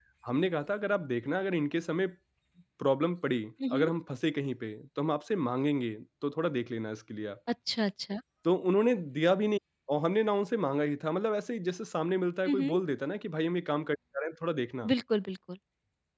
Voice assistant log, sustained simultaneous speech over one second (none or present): none